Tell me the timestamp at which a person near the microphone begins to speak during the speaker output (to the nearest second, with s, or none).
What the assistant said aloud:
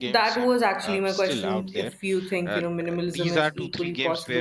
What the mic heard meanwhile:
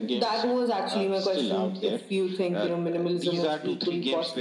none